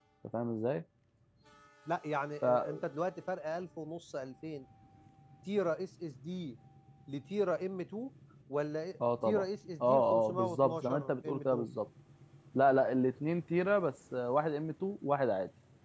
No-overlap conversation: No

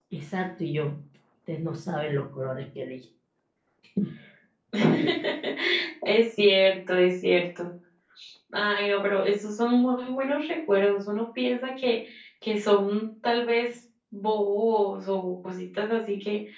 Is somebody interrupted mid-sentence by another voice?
No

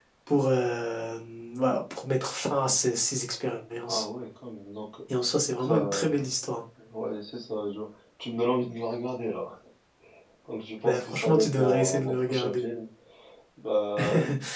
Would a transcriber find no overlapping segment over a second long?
No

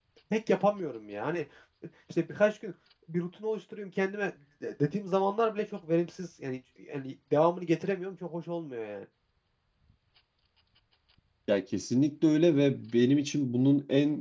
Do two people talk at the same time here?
No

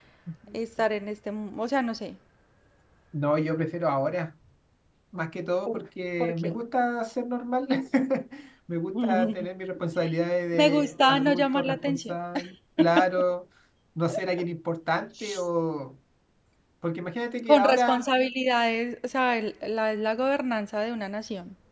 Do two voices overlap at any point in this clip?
Yes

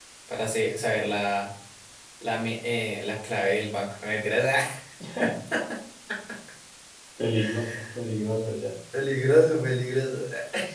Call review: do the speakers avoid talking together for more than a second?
Yes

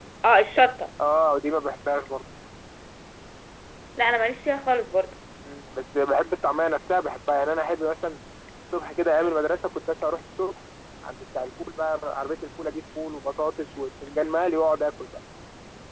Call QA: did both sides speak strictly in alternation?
Yes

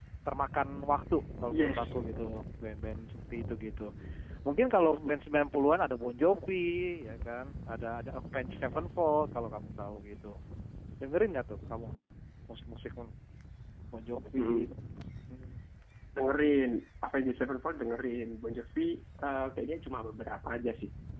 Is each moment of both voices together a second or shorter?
Yes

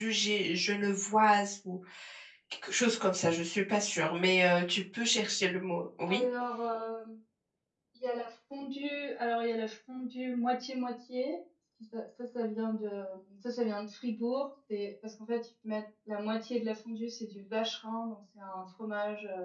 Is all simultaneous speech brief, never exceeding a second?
Yes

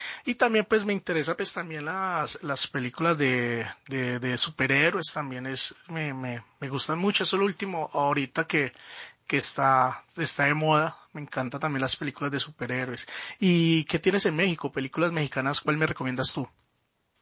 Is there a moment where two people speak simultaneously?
No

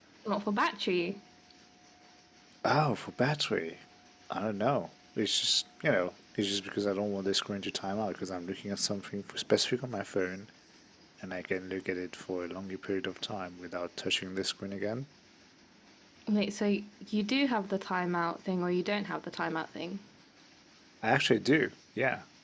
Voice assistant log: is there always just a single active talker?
Yes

